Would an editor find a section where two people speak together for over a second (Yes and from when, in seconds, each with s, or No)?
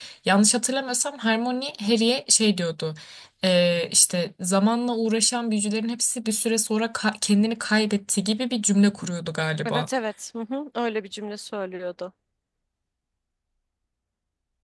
No